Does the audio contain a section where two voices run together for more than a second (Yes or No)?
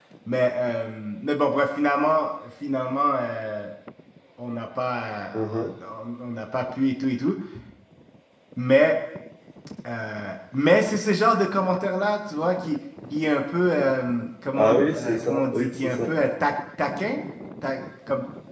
Yes